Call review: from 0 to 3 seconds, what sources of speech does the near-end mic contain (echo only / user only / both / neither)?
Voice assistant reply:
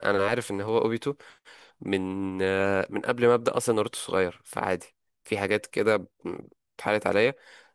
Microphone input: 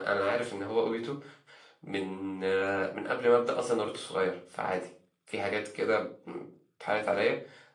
echo only